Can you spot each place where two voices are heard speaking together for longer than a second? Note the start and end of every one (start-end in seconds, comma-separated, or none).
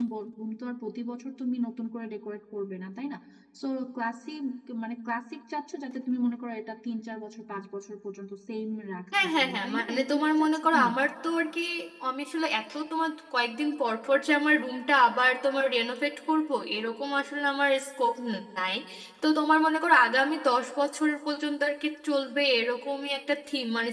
9.2-10.9